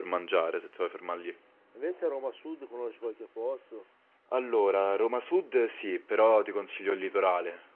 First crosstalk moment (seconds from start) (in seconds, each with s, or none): none